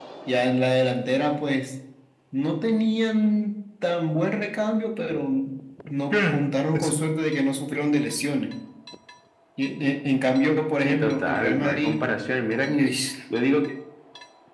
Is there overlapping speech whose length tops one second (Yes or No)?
Yes